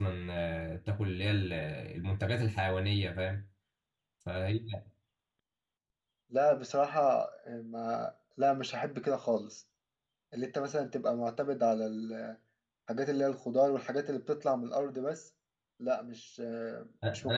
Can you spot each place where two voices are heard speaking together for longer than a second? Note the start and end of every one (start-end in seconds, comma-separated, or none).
none